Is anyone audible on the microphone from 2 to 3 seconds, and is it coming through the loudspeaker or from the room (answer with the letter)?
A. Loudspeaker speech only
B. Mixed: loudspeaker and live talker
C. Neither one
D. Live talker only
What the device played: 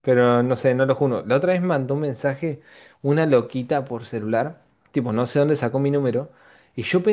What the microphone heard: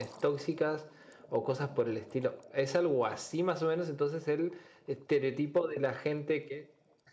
D